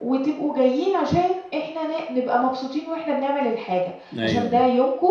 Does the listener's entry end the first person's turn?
No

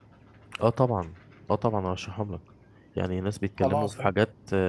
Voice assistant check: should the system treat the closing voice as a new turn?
No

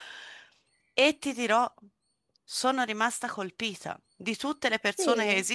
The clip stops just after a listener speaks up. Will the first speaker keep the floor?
Yes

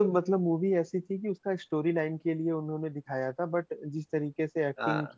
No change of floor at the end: Yes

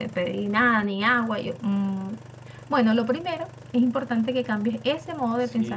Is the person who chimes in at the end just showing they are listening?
No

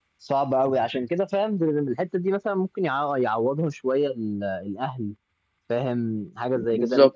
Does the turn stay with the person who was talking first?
Yes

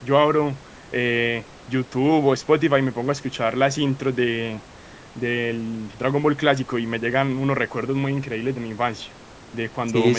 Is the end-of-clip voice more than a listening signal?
No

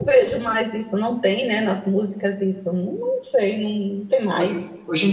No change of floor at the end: No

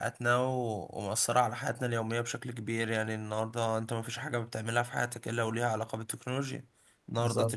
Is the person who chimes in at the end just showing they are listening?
Yes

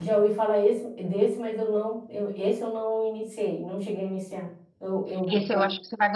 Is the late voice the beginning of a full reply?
Yes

